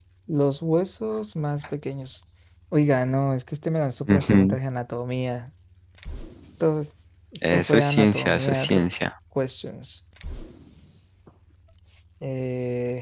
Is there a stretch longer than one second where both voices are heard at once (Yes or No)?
Yes